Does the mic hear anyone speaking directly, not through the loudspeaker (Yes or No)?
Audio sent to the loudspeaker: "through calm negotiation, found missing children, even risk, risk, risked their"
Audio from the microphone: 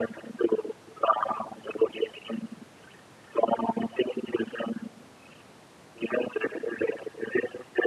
No